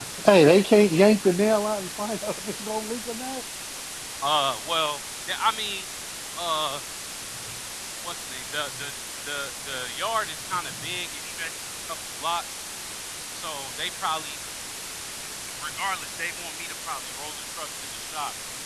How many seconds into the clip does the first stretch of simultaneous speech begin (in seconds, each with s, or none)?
none